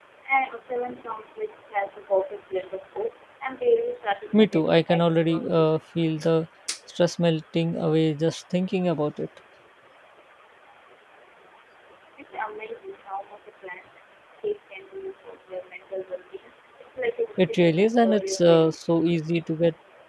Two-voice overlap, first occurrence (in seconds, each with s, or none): 4.3 s